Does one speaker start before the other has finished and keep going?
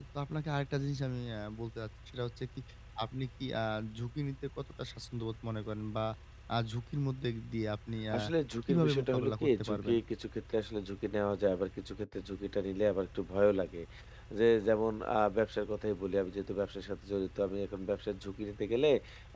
Yes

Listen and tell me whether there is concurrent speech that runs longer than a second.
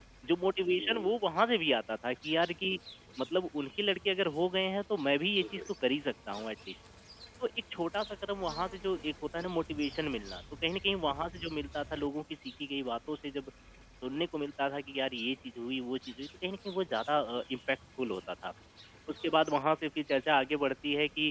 No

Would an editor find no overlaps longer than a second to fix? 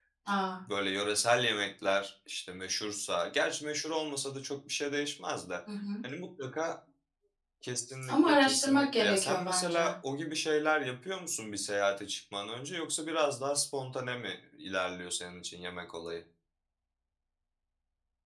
No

